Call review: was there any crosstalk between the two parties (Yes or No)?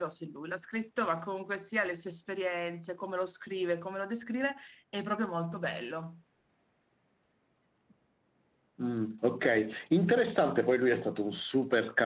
No